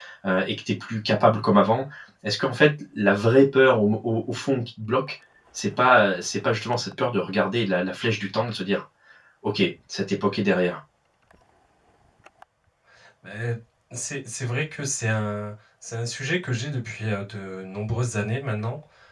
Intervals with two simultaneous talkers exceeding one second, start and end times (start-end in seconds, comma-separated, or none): none